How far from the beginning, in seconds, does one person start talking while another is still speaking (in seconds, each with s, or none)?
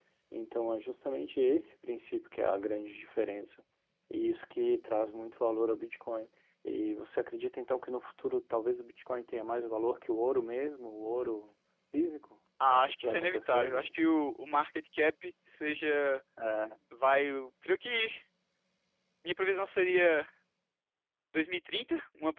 12.6 s